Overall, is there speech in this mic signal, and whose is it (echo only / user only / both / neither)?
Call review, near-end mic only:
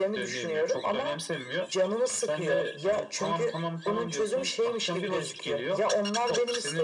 echo only